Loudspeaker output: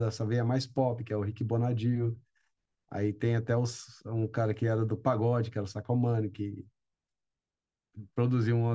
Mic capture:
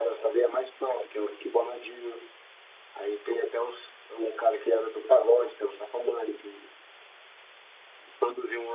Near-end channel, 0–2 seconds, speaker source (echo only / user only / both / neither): echo only